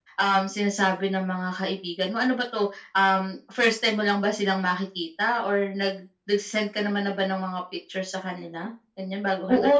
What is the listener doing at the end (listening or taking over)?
taking over